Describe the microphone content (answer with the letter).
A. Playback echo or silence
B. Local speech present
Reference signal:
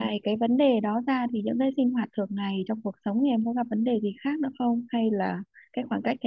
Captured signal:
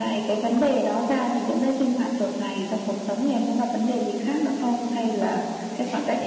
B